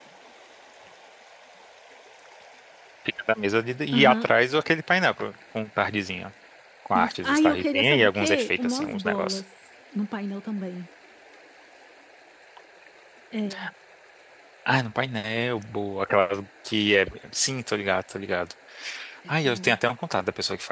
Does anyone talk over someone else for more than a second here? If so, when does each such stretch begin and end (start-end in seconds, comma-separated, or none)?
6.9-9.4